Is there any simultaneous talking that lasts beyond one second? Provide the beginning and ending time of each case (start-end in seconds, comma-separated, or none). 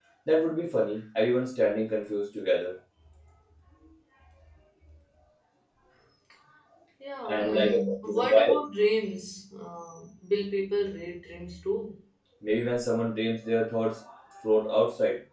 7.2-8.6